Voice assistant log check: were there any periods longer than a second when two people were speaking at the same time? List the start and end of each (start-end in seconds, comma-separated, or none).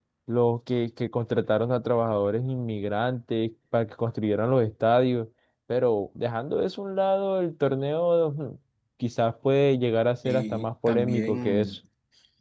10.2-11.8